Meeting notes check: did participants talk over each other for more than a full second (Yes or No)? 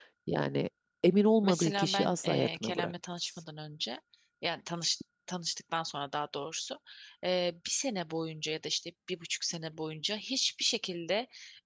Yes